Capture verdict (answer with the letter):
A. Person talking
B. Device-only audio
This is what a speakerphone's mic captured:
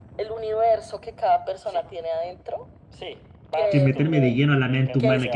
A